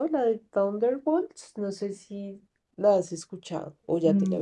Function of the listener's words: taking over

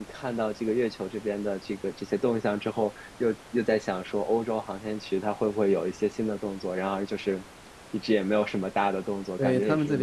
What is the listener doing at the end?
taking over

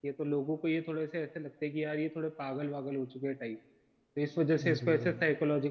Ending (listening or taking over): listening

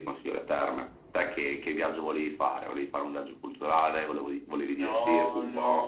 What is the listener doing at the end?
taking over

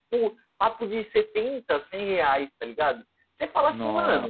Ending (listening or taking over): listening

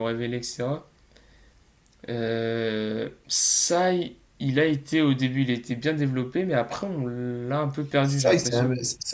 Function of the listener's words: taking over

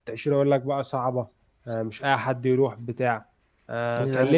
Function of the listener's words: listening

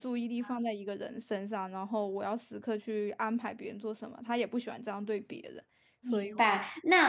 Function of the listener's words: taking over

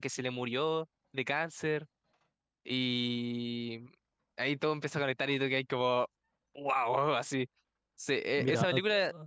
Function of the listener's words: listening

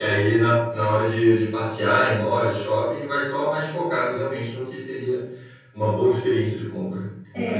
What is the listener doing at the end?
taking over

